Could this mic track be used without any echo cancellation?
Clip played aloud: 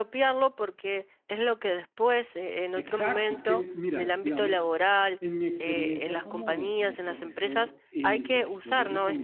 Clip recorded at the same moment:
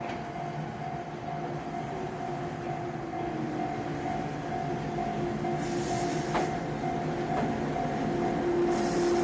Yes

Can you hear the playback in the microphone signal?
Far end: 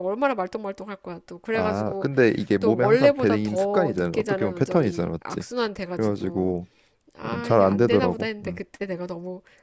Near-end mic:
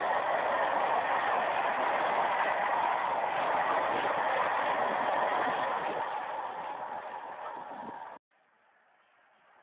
No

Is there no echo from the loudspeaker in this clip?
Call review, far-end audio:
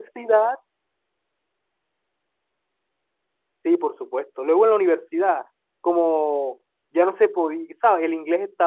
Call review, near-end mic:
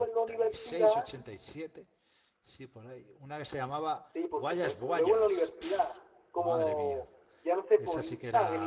No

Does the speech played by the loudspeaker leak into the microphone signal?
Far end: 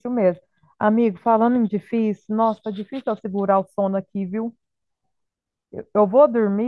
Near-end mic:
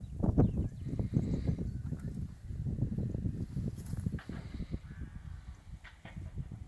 No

